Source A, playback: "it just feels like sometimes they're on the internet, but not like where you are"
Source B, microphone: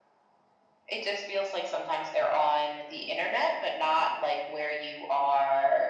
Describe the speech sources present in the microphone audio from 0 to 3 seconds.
echo only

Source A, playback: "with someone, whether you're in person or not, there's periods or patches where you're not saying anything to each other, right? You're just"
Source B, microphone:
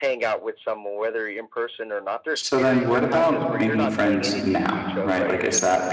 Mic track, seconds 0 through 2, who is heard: echo only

